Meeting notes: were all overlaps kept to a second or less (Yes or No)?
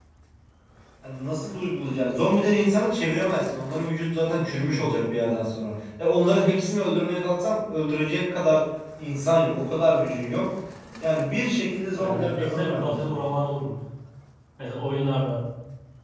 No